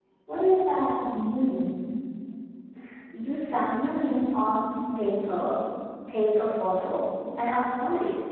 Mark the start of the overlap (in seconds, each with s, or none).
none